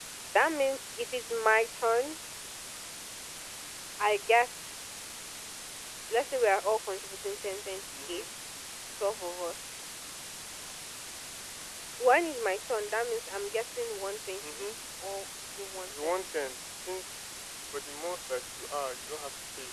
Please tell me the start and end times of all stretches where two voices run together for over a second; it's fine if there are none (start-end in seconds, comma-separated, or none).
none